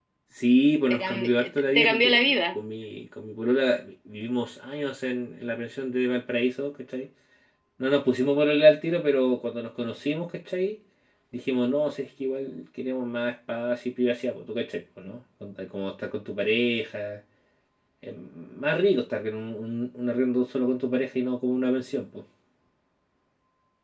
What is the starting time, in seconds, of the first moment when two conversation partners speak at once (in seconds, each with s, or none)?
0.9 s